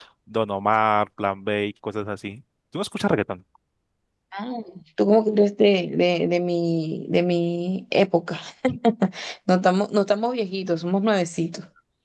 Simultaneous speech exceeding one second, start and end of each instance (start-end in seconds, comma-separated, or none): none